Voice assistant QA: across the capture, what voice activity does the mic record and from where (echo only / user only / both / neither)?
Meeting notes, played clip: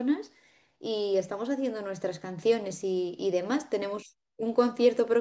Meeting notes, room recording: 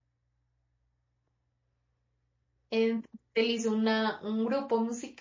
user only